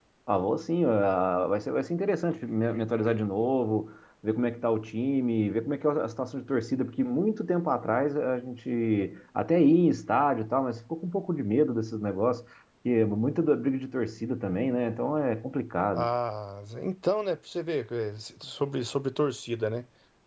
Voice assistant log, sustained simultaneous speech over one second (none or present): none